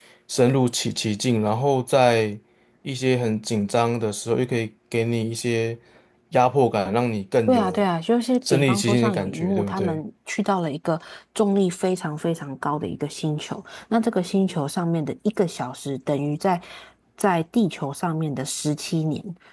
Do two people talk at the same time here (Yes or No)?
Yes